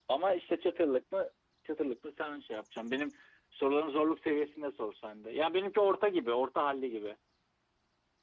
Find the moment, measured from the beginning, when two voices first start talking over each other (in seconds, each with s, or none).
none